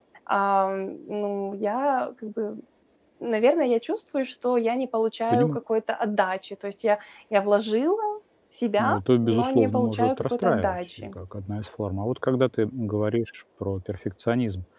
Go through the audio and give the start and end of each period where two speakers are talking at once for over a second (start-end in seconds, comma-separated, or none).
8.8-11.1